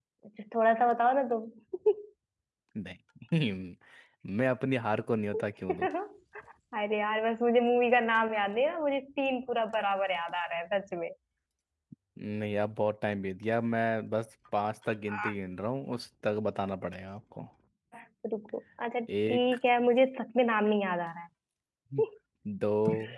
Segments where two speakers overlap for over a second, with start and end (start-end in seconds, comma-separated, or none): none